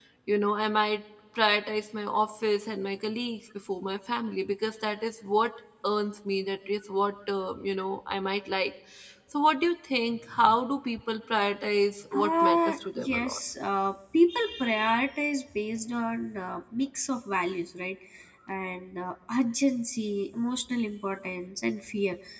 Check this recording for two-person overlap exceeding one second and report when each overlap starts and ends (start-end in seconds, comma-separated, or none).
12.1-13.4